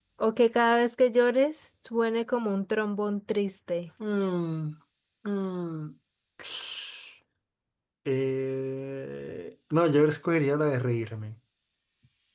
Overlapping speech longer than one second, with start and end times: none

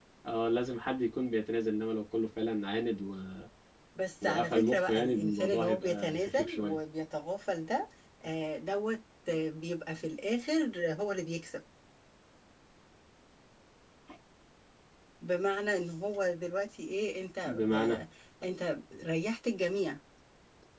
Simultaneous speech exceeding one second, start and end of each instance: 4.2-6.8

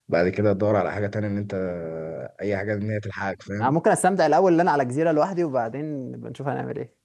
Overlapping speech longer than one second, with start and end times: none

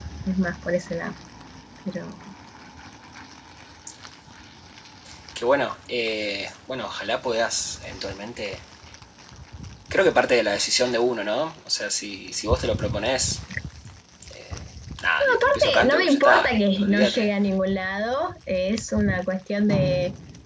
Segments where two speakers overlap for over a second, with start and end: 15.2-17.3

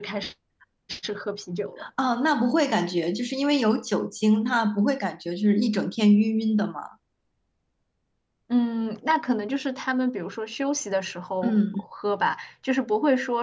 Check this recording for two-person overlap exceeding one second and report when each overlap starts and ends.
none

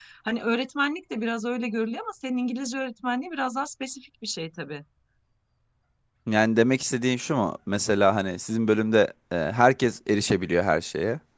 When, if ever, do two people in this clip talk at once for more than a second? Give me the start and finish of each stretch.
none

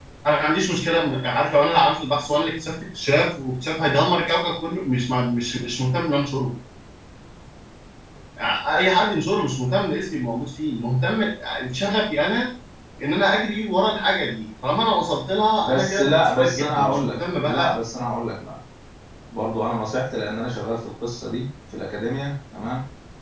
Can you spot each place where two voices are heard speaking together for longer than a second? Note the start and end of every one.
15.6-17.7

